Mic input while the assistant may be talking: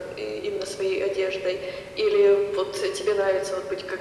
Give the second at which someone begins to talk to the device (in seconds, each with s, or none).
none